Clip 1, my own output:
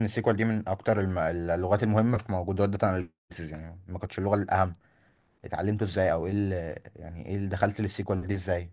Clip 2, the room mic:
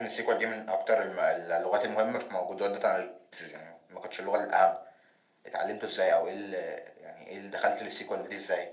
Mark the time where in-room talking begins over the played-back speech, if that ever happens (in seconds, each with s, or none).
none